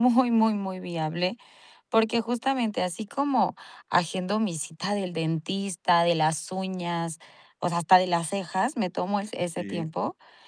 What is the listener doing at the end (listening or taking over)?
listening